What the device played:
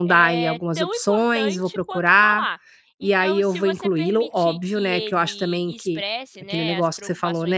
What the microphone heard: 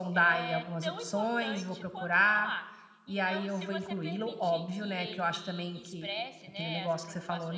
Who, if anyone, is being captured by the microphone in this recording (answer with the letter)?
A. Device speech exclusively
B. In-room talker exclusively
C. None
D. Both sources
A